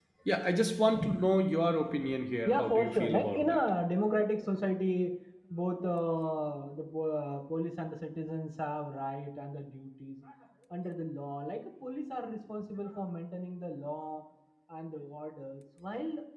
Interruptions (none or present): present